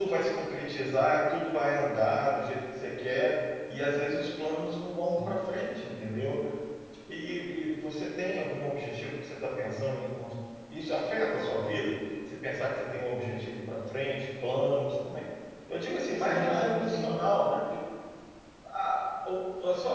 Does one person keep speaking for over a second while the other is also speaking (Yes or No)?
Yes